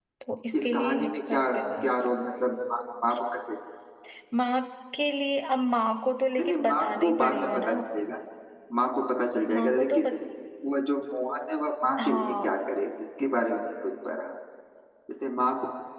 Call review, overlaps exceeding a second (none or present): present